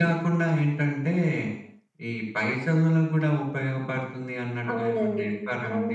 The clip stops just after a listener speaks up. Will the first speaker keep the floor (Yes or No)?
No